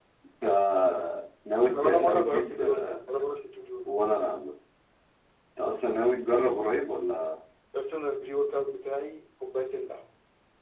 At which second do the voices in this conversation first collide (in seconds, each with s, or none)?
1.7 s